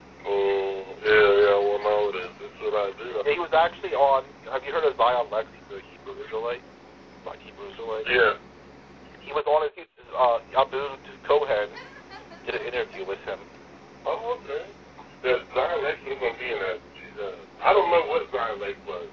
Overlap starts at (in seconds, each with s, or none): none